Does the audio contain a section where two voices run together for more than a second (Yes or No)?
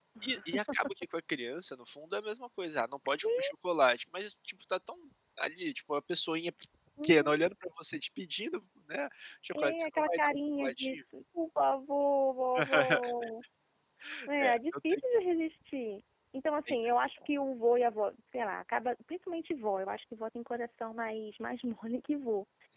Yes